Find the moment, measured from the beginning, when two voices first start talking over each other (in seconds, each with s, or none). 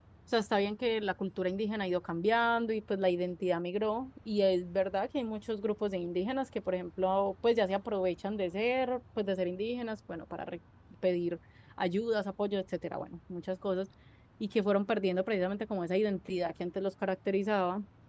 none